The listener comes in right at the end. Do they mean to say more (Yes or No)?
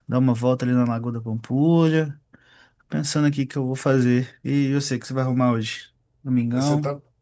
Yes